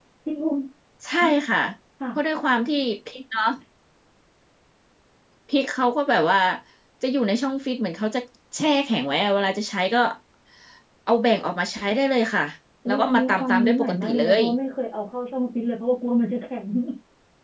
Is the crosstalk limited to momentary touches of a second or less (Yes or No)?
No